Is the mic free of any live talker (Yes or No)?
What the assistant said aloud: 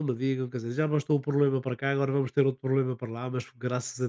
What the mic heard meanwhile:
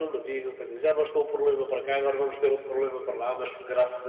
Yes